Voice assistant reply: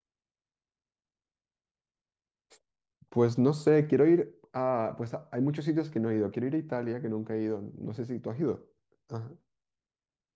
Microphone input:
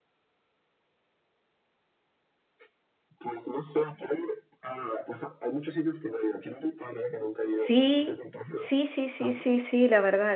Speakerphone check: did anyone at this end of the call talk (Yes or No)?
Yes